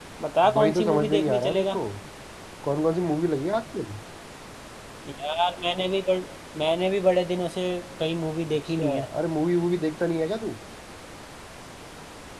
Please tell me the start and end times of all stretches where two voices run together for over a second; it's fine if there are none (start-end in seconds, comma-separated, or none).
0.5-1.8